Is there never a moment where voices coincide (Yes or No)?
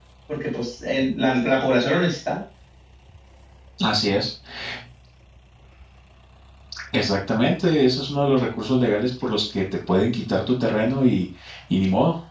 Yes